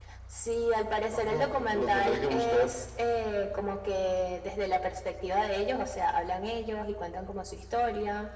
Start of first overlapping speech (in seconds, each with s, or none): 1.2 s